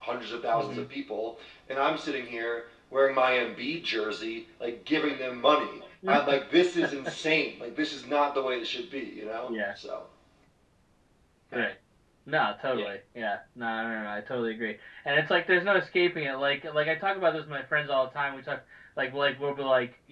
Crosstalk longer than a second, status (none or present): none